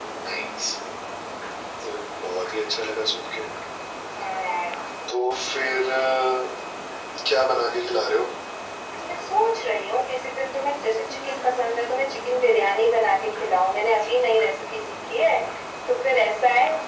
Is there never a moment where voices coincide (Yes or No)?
Yes